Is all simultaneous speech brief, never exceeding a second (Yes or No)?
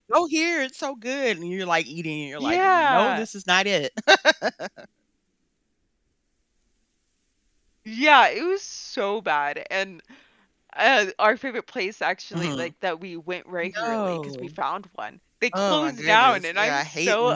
No